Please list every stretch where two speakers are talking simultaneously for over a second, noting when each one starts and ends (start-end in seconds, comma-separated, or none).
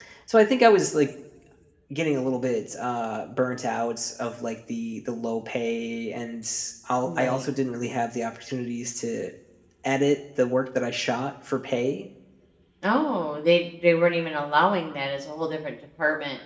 none